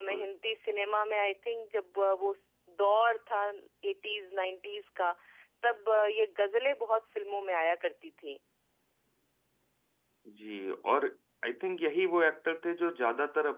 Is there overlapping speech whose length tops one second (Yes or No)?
No